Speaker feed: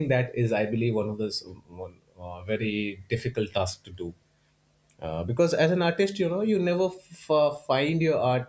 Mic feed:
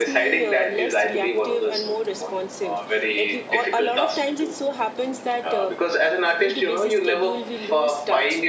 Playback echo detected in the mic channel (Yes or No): Yes